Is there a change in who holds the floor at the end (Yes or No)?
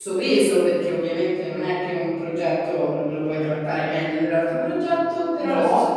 No